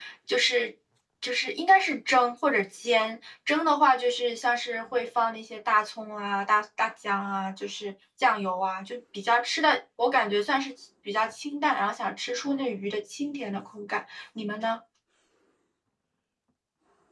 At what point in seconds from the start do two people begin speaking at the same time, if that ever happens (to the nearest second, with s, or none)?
none